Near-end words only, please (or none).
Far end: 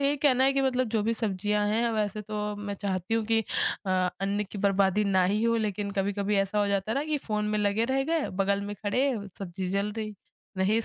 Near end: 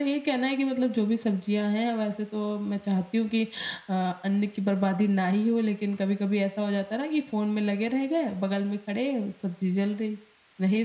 none